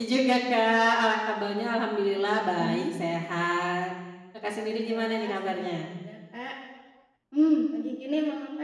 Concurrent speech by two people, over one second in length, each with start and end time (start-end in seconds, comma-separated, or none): 4.5-6.0